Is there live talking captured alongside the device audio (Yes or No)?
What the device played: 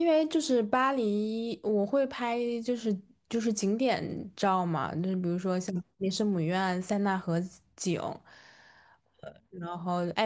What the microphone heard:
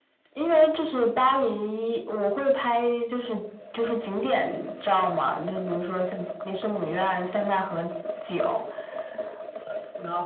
No